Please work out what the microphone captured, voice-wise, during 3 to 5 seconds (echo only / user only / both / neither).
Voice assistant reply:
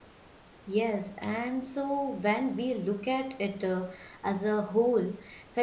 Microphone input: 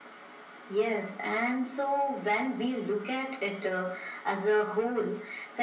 echo only